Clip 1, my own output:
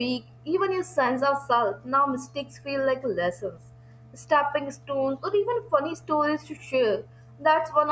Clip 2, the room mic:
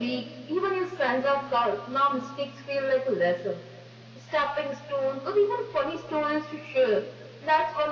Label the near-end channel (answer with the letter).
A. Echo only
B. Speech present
A